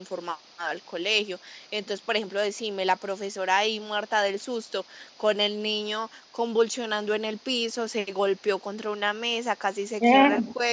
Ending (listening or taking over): listening